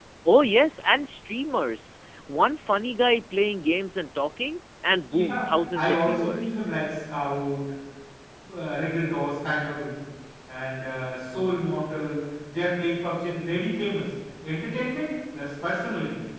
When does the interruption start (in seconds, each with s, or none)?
5.1 s